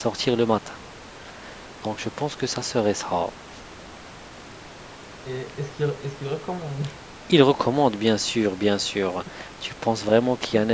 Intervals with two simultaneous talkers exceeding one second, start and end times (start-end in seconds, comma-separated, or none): none